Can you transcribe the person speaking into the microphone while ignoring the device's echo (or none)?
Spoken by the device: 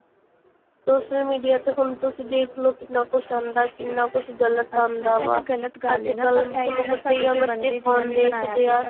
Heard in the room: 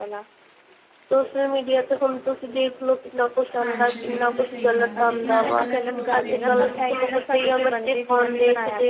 ਹਾਂਜੀ, ਬਿਲਕੁਲ ਸਹੀ ਗੱਲ ਹੈ, ਲੇਕਿਨ ਅੱਜ ਕੱਲ੍ਹ ਇਹ ਸੋਚਦੇ ਨੀ ਨਾ।